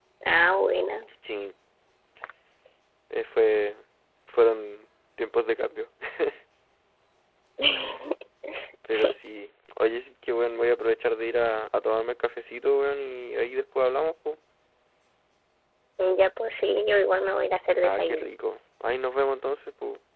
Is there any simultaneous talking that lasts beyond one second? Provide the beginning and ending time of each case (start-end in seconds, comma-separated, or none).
none